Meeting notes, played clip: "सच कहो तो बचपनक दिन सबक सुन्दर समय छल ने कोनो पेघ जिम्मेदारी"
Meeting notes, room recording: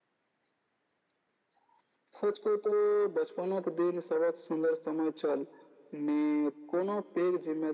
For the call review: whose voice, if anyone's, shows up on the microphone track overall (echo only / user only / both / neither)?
echo only